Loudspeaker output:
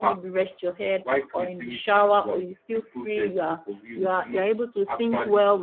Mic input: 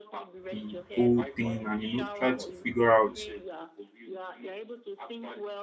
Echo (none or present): present